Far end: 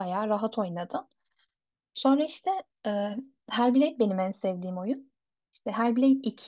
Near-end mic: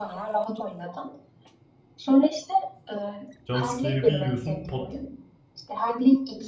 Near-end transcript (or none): jump scare'i bir yiyorsun pat